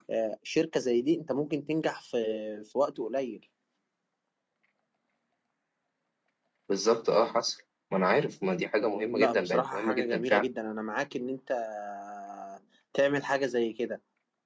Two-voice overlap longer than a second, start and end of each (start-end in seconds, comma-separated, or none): 8.9-10.4